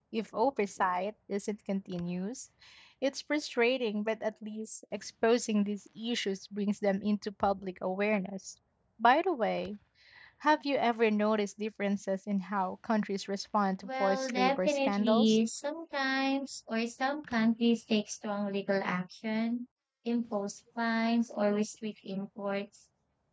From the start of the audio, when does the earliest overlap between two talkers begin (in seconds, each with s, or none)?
13.8 s